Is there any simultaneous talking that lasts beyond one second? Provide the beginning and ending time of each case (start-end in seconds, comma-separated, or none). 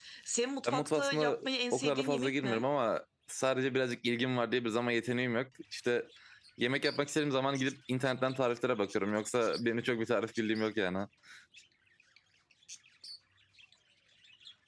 0.6-2.6